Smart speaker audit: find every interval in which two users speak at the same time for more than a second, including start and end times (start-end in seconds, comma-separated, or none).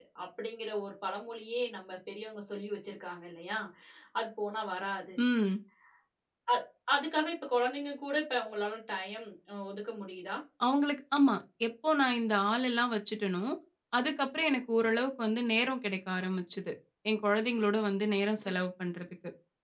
none